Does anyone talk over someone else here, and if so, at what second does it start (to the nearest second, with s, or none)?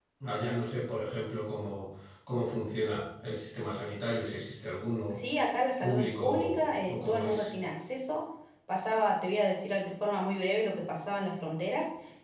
6 s